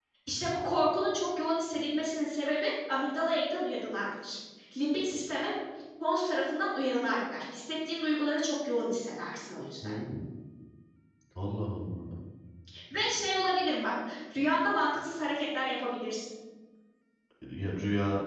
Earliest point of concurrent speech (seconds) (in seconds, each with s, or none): none